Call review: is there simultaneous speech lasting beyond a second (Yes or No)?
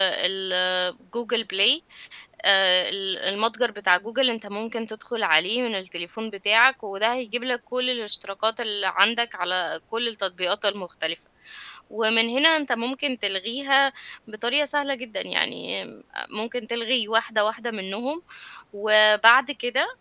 No